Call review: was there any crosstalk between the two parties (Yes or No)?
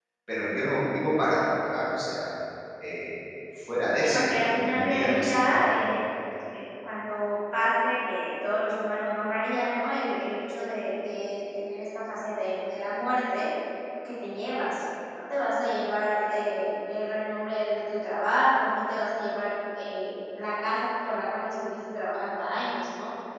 Yes